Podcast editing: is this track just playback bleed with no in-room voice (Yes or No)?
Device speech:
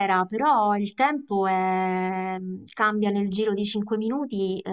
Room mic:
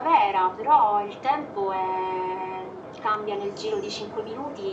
Yes